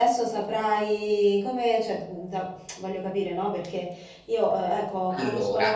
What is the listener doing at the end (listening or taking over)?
listening